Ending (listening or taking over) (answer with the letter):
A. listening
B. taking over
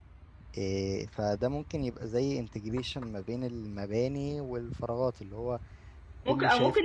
B